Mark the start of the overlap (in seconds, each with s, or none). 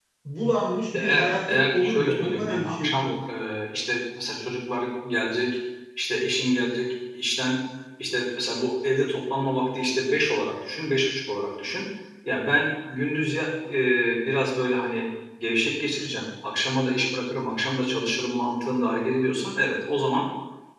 0.9 s